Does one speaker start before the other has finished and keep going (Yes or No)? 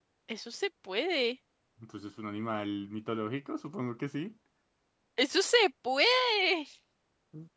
No